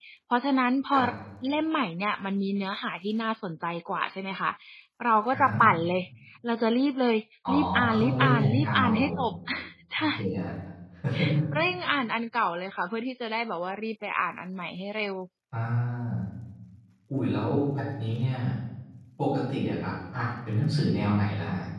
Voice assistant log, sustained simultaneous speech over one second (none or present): present